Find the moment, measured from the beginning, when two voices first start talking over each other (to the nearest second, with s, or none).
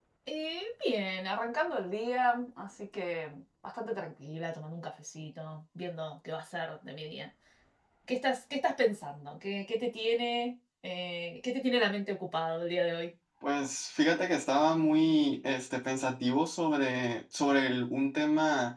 none